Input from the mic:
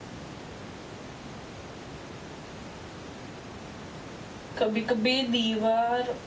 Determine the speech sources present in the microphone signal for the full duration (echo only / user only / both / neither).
user only